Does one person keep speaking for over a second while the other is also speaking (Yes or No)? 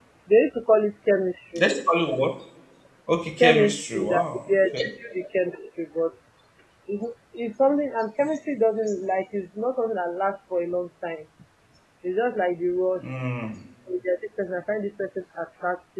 Yes